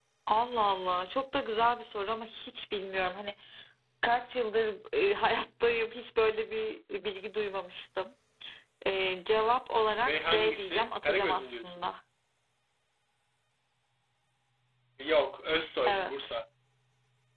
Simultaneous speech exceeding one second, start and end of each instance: 10.1-11.8

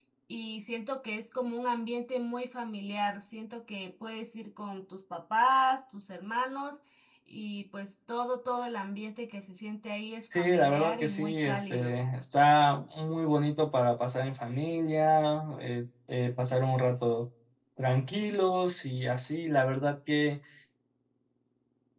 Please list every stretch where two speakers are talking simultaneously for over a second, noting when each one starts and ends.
10.3-11.9

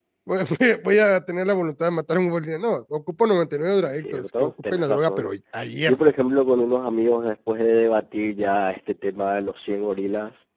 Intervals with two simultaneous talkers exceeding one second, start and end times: 3.9-5.3

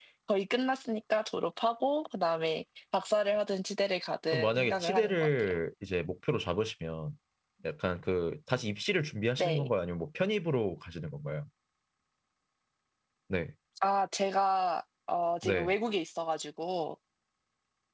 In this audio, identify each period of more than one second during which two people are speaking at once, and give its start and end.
4.3-5.5

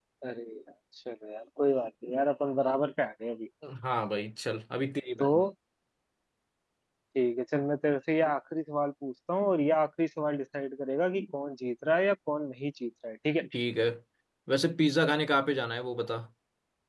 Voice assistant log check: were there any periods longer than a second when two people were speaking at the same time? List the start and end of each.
none

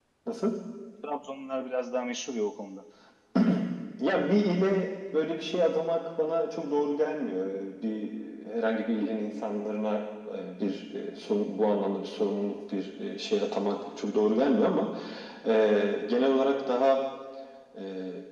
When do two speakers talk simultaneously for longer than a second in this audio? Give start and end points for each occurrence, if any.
none

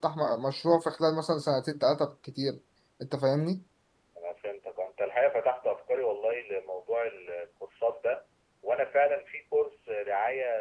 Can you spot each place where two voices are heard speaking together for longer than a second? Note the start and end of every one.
none

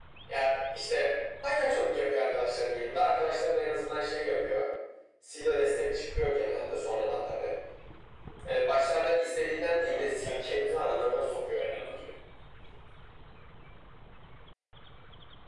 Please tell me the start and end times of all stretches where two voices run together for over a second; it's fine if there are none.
9.9-11.6

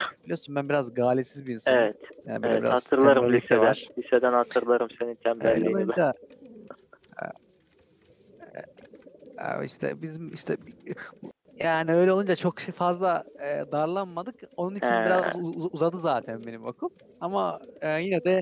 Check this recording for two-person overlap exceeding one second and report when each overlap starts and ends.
2.4-3.8

